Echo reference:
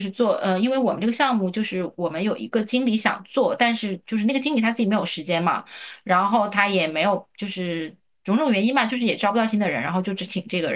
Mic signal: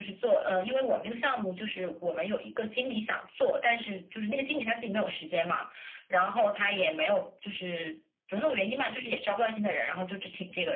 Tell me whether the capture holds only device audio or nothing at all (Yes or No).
Yes